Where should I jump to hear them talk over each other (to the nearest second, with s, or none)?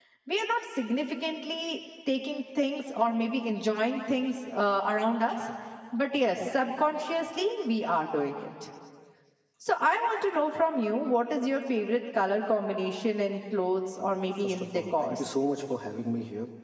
14 s